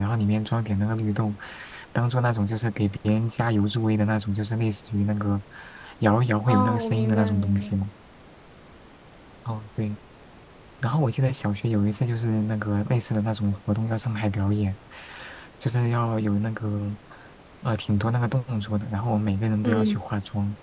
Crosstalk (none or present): present